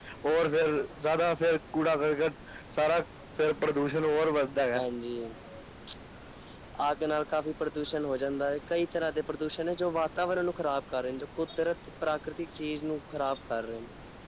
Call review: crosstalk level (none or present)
none